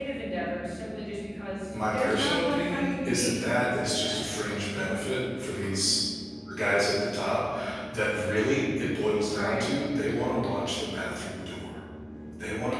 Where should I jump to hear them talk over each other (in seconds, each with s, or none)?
1.9 s